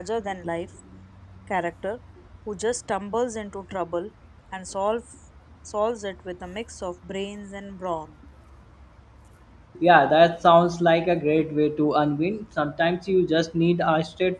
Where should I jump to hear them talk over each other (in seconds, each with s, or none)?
none